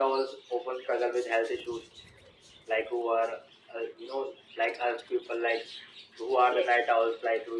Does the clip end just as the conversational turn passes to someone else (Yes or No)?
No